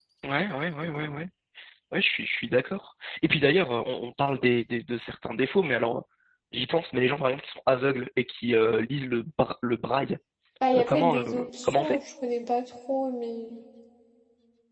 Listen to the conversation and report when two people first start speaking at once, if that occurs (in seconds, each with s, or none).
10.7 s